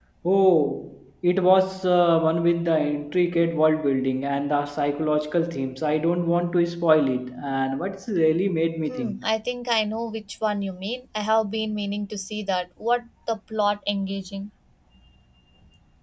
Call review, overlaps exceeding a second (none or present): none